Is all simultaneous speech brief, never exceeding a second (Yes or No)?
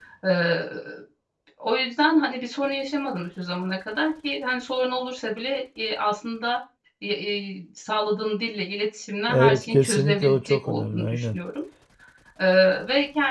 No